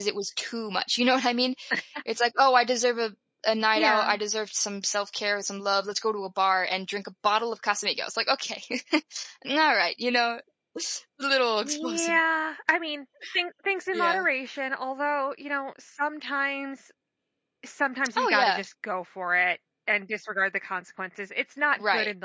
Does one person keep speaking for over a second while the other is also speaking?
No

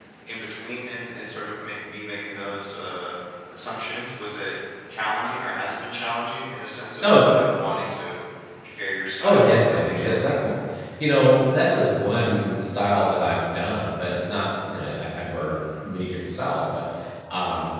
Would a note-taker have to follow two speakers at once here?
Yes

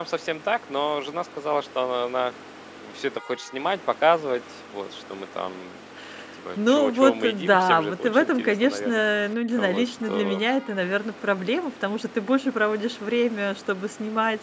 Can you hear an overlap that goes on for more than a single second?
Yes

